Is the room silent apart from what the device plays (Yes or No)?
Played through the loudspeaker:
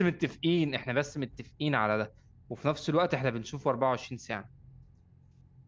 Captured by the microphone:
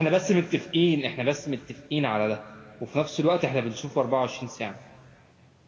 Yes